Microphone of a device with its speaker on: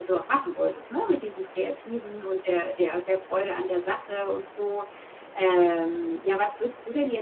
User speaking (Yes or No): Yes